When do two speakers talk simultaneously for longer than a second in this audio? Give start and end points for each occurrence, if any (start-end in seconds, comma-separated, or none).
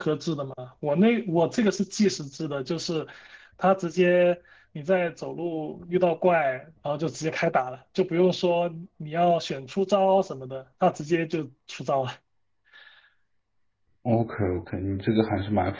none